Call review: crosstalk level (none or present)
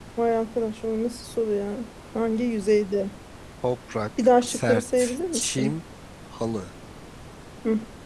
present